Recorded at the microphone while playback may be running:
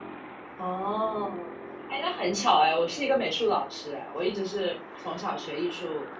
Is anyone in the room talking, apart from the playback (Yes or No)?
Yes